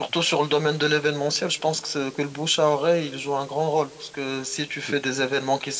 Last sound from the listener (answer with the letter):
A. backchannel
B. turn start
A